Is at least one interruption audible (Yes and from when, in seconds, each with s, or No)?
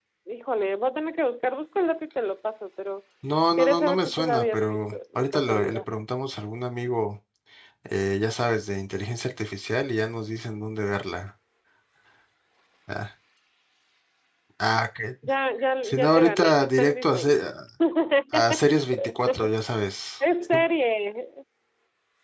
Yes, from 3.6 s